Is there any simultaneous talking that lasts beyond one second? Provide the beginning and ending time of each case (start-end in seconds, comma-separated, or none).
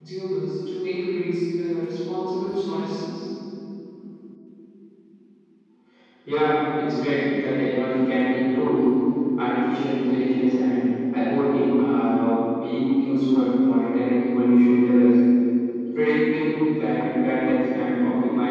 none